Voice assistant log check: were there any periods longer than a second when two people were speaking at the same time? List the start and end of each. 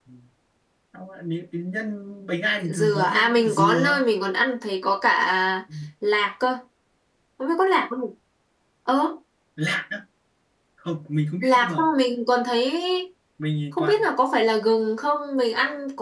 2.7-4.0

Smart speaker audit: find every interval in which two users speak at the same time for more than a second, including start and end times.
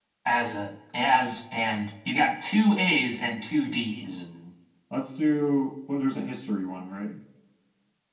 none

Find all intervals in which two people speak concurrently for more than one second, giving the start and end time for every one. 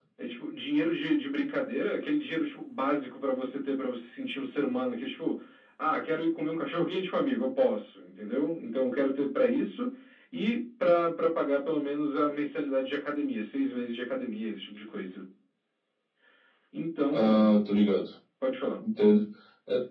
none

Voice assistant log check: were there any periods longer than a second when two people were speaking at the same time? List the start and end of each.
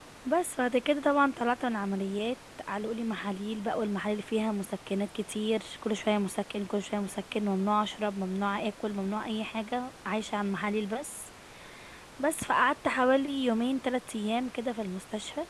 none

